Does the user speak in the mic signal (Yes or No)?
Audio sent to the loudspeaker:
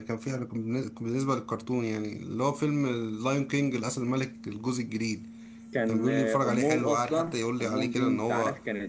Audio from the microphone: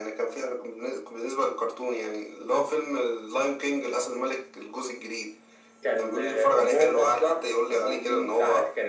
No